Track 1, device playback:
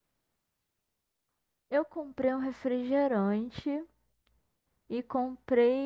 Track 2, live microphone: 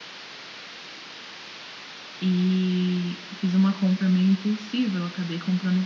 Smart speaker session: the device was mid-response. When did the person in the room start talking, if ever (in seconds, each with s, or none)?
2.2 s